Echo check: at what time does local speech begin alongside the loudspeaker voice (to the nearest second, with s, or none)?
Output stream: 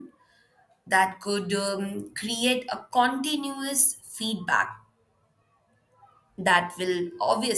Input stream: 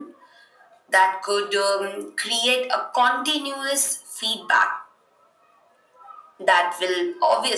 none